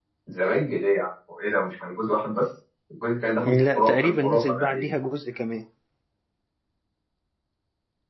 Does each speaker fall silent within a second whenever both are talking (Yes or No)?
No